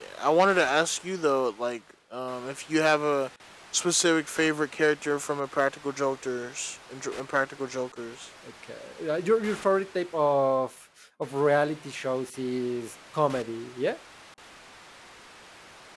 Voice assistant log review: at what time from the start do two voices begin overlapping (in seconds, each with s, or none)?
none